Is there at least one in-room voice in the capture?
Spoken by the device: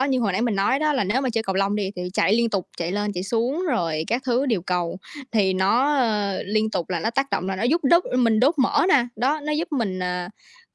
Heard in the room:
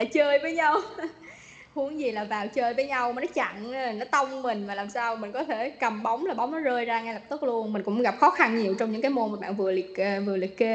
Yes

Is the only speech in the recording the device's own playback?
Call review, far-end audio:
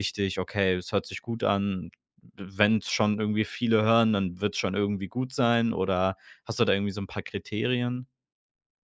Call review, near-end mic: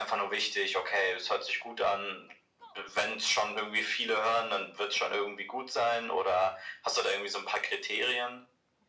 Yes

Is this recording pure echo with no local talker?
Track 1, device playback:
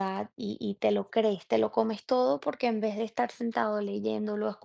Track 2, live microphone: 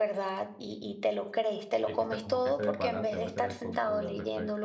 No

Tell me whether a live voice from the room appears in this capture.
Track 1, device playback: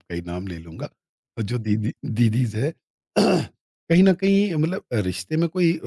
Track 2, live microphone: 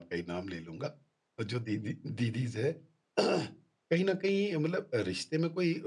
No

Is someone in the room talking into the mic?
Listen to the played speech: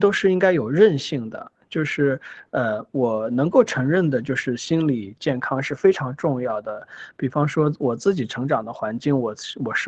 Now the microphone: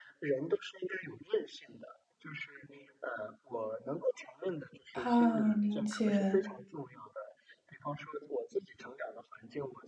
Yes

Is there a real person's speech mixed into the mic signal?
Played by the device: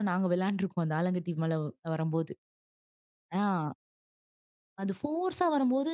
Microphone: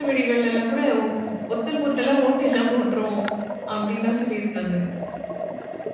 Yes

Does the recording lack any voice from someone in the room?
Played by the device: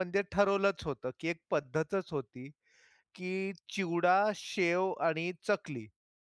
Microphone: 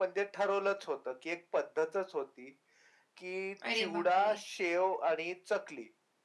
No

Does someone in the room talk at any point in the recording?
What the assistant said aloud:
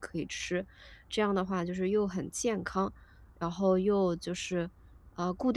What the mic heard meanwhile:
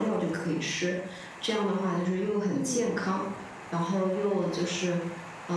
Yes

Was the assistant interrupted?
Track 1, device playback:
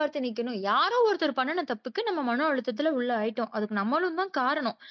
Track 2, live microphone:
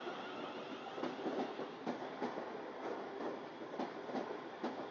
No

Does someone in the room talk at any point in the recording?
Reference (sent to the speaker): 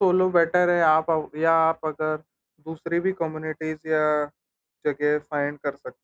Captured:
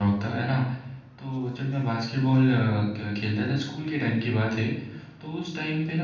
Yes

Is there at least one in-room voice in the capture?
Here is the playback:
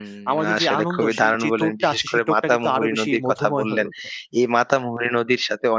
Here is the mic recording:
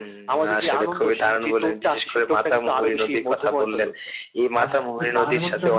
Yes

